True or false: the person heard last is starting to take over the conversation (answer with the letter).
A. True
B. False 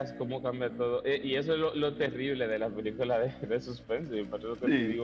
B